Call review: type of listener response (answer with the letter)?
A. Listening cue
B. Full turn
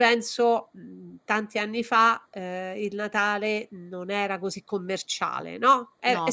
A